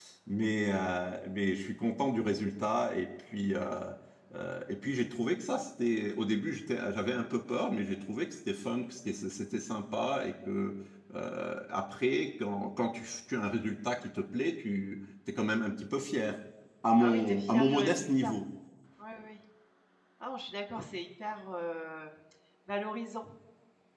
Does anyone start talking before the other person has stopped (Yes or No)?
Yes